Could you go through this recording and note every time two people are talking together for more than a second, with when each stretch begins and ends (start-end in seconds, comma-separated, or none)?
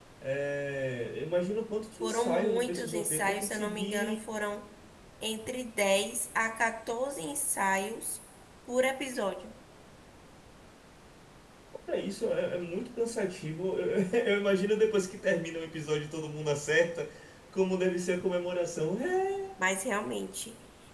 2.0-4.2